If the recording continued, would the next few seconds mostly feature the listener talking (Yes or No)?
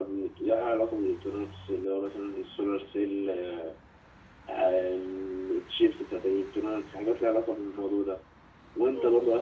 No